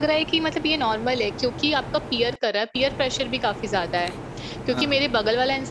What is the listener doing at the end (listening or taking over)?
listening